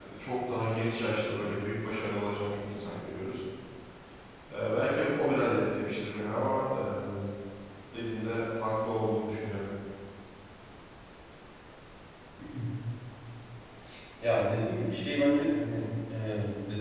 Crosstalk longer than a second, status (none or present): none